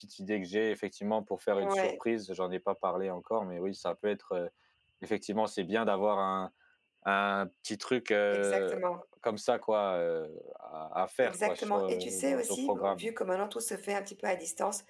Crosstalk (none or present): present